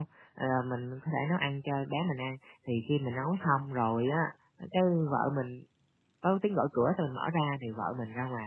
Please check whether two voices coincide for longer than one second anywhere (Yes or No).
No